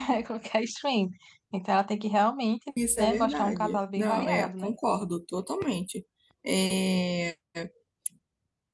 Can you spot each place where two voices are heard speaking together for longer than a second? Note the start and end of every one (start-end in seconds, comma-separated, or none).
3.0-4.7